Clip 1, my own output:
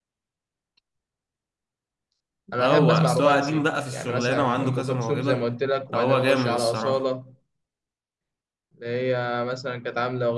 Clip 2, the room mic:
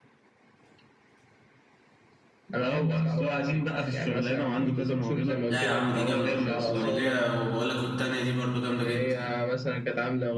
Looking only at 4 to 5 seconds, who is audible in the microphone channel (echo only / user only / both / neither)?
echo only